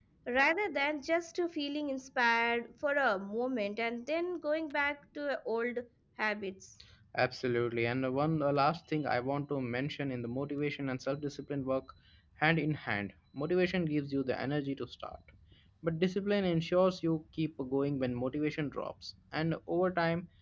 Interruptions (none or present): none